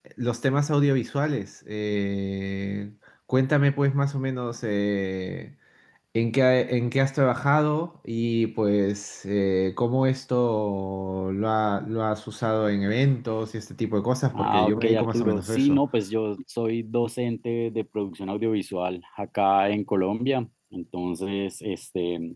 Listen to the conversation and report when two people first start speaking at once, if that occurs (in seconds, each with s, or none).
14.3 s